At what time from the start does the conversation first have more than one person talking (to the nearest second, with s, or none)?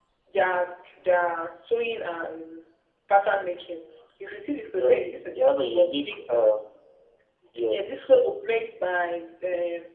5 s